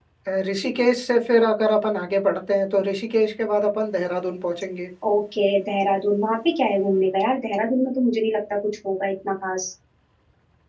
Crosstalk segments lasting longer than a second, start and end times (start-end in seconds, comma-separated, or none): none